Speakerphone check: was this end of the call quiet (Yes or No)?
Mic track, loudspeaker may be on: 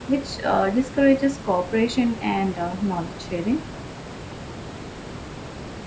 Yes